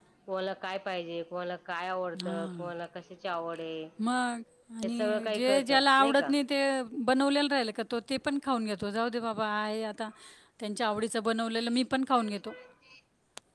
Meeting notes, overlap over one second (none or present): present